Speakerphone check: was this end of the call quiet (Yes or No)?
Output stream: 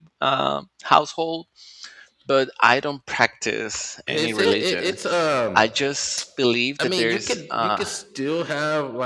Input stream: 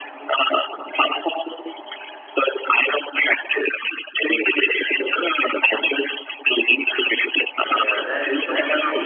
No